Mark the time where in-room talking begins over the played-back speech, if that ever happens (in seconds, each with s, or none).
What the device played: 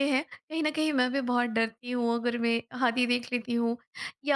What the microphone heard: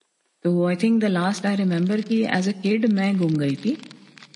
0.4 s